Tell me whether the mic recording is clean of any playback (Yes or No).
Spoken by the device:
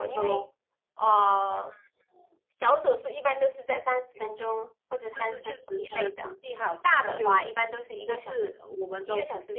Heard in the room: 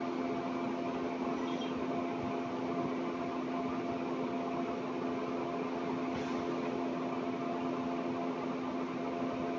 Yes